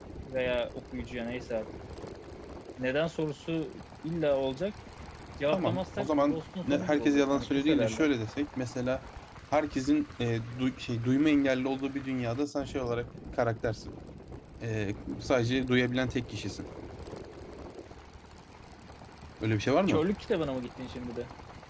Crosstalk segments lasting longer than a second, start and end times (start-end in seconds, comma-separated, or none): 5.5-8.1